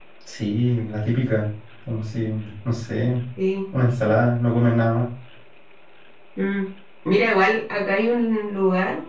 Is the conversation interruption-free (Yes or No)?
Yes